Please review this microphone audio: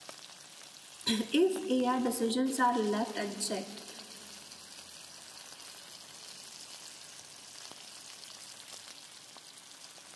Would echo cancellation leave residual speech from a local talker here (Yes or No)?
Yes